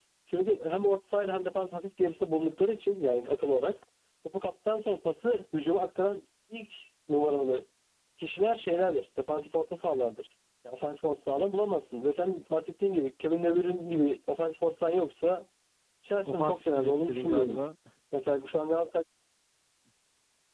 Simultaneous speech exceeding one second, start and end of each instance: 16.2-17.6

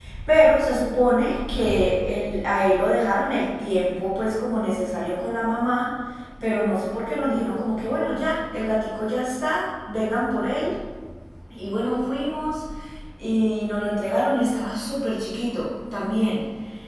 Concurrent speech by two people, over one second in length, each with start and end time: none

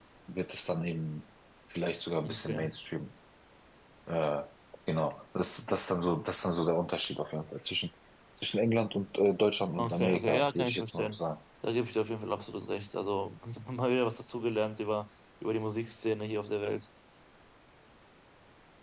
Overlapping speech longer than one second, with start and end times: 9.8-11.2

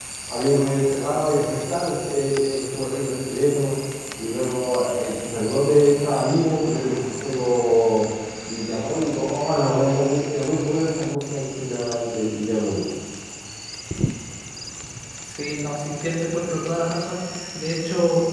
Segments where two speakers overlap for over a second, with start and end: none

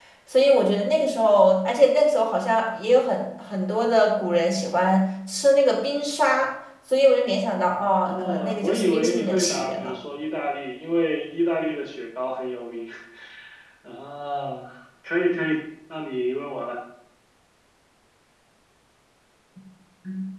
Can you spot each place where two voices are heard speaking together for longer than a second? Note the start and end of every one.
8.1-9.9

